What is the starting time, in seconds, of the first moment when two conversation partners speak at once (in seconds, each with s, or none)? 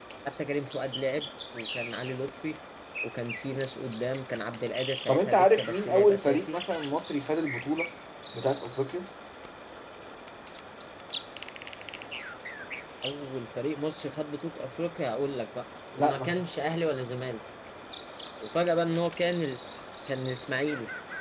5.1 s